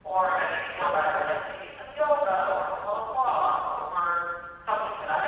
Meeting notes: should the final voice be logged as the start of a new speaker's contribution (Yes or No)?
No